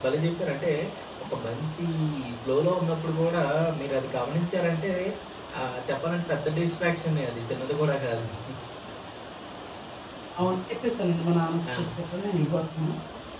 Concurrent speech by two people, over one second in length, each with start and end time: none

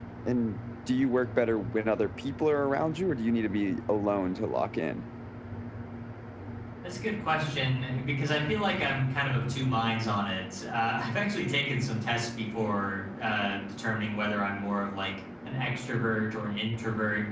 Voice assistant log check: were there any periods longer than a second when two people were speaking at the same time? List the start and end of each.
none

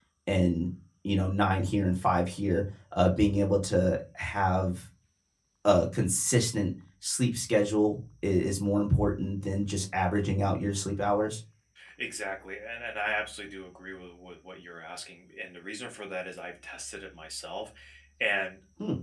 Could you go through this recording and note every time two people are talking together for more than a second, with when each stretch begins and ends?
none

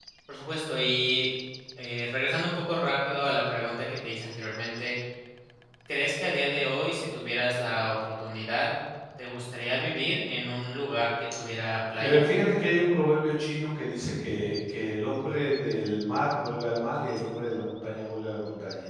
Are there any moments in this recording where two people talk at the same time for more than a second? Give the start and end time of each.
none

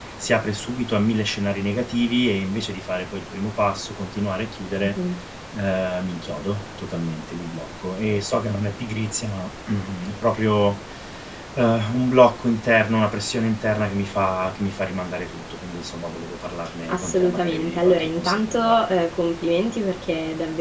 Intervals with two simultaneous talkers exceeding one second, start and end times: 16.9-18.8

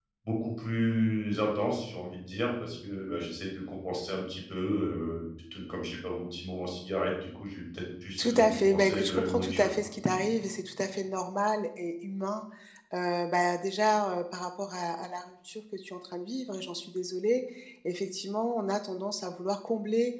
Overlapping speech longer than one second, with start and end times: 8.2-9.7

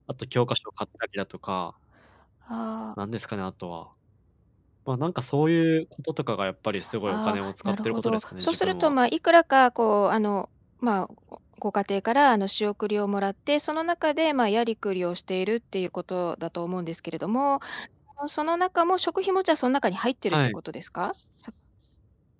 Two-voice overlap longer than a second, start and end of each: 7.1-8.9

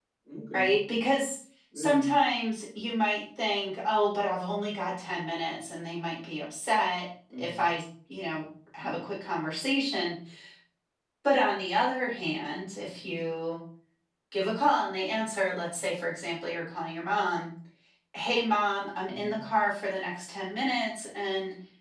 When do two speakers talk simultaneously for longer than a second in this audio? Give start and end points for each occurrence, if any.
none

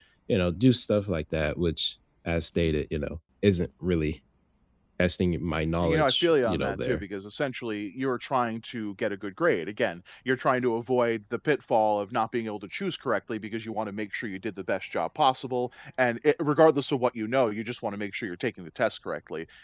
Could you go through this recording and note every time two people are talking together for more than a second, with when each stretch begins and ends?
5.8-7.0

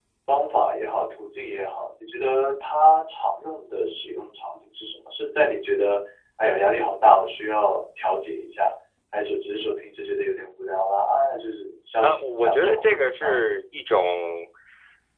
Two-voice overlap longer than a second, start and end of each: 12.0-13.4

